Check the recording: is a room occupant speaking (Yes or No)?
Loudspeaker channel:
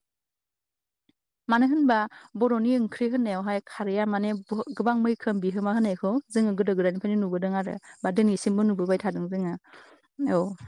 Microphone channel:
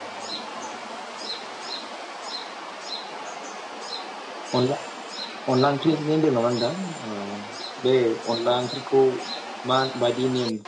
Yes